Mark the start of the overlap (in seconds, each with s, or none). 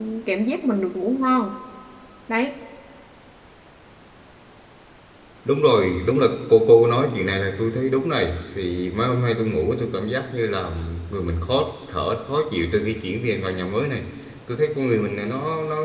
none